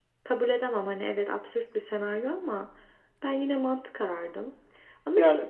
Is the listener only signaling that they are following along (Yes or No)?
Yes